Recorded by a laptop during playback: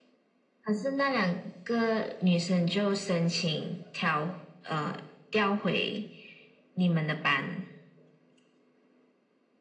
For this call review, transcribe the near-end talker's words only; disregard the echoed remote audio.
none

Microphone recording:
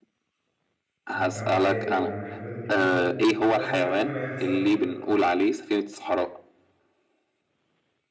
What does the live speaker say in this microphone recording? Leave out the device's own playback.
هو أنت ما إيه ما إحنا لازم حد فينا لازم حد فينا يخسر

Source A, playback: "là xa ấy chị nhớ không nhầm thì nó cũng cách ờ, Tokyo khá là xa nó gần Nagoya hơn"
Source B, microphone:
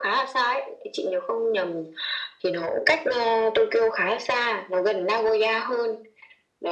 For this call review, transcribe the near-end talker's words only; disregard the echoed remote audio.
none

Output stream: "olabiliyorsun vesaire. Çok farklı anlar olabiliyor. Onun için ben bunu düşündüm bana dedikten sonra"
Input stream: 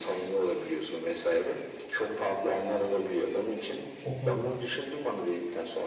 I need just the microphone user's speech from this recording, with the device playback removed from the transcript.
O konudan

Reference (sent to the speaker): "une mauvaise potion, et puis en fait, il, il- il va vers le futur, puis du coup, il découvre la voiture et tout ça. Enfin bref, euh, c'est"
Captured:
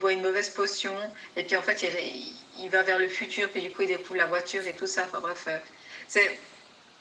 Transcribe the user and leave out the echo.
none

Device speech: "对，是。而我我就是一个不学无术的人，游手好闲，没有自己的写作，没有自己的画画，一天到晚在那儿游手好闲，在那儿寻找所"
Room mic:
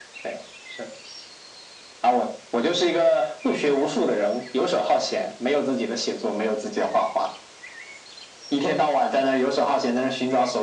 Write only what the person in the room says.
none

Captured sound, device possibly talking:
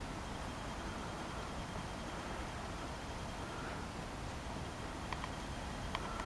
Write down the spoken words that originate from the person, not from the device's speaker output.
none

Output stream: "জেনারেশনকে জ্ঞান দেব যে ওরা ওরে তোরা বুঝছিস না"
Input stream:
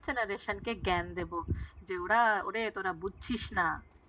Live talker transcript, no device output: none

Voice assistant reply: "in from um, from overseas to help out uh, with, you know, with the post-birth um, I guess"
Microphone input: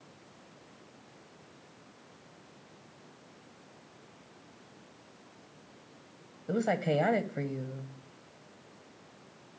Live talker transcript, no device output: It was like chaotic for you.

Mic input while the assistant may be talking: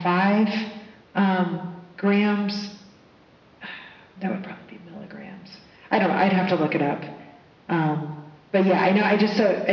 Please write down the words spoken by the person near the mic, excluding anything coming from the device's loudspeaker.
none

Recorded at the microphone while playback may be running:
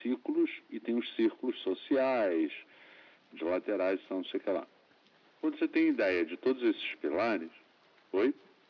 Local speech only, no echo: none

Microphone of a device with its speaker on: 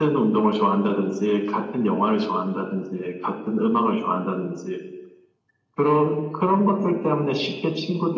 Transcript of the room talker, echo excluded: none

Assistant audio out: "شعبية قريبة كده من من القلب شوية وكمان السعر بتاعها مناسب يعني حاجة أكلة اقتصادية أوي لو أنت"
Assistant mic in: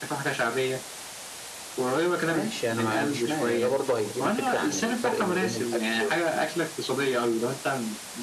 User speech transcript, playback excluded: ماشي انا ما عنديش مانع ده برضه هيدينا فكرة عن الفرق ما بين الاكل

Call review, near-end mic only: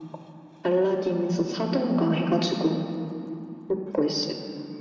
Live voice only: none

